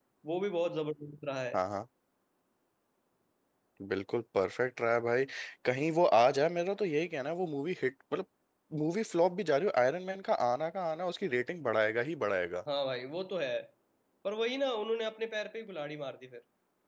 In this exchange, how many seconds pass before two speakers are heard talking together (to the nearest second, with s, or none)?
none